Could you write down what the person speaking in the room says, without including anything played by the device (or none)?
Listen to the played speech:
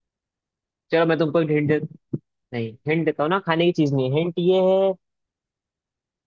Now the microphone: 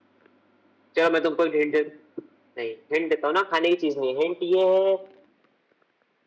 none